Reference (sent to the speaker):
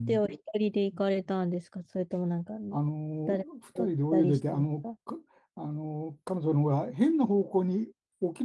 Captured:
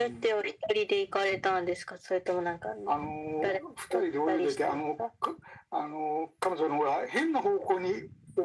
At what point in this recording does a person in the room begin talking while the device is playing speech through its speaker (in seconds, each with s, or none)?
none